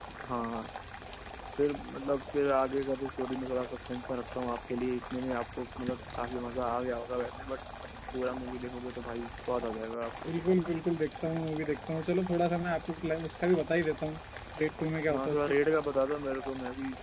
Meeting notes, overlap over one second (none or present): none